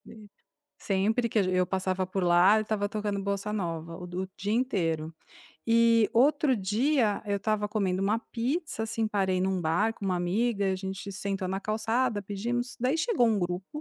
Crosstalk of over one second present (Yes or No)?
No